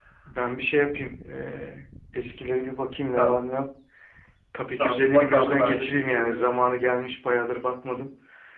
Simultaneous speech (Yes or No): Yes